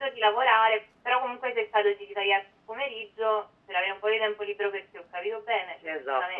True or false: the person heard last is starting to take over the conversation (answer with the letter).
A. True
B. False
A